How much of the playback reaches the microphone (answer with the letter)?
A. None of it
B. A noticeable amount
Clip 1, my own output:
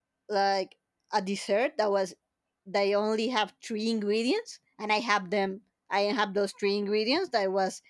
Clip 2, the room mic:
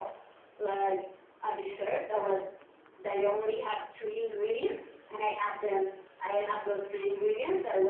B